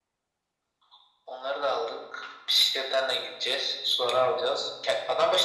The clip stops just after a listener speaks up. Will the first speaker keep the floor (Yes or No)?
Yes